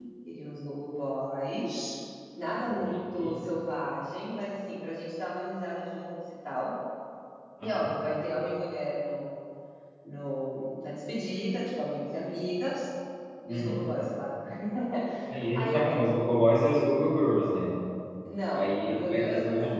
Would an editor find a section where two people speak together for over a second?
Yes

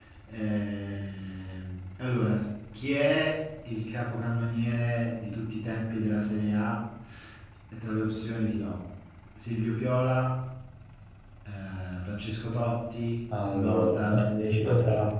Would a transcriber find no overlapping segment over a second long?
No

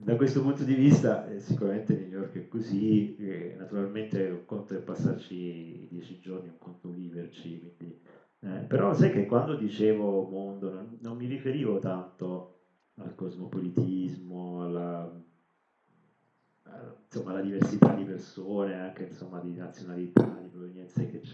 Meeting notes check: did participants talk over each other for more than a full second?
No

